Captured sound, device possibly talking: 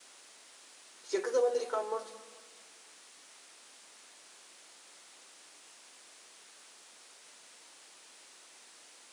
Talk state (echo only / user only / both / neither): user only